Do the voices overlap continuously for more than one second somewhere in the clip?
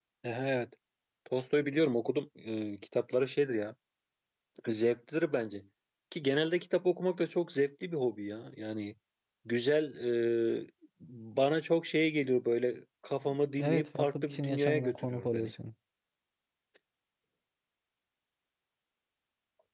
Yes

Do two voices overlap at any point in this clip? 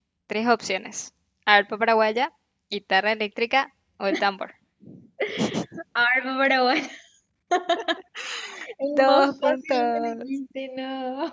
Yes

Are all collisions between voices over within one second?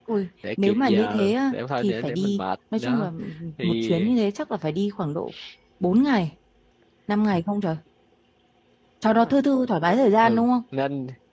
No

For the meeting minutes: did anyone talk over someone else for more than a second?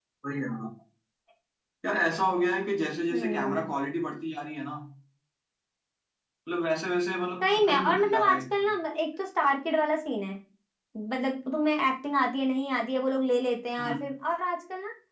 Yes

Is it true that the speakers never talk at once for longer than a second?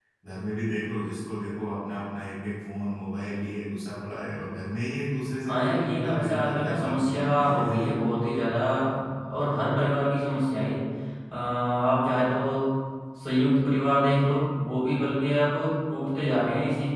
No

